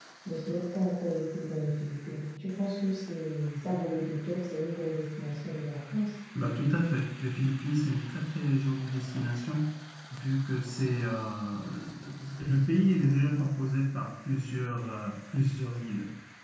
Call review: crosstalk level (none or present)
none